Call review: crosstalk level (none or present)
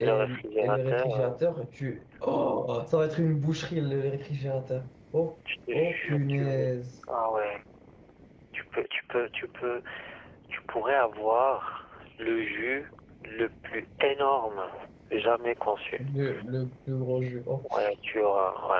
present